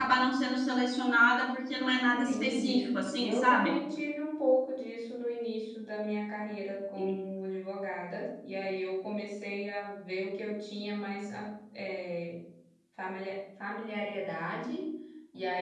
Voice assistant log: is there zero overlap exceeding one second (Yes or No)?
No